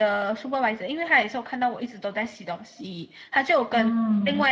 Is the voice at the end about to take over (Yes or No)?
No